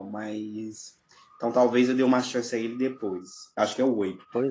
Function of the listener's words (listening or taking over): listening